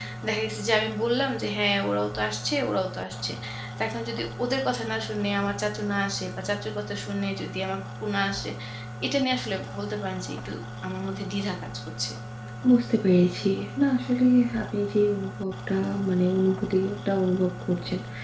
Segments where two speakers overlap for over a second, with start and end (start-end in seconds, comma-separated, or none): none